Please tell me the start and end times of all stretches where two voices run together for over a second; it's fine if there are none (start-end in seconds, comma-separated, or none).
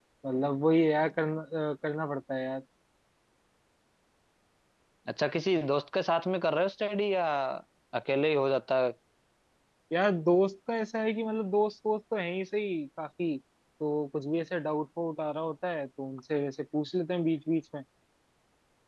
none